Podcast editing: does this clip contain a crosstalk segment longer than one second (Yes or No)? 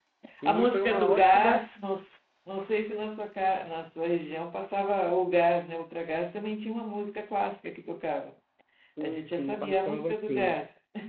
Yes